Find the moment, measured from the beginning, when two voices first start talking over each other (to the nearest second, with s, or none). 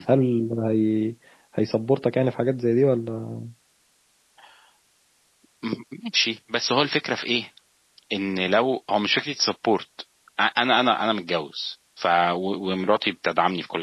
none